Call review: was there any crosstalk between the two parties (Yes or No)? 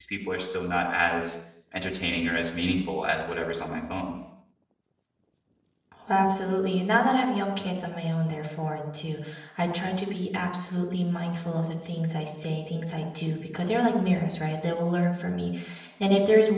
No